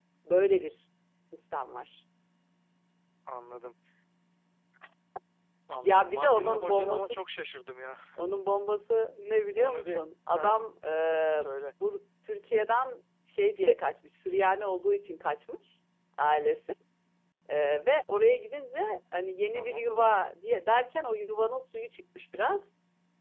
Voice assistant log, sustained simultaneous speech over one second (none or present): present